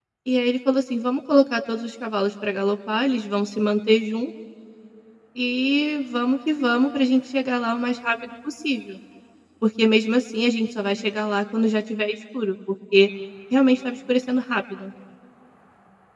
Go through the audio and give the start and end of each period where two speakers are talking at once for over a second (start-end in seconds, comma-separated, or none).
none